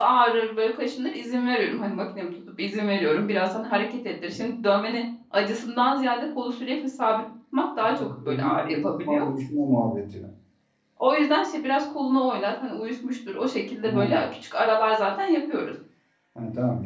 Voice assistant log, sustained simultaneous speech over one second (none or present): present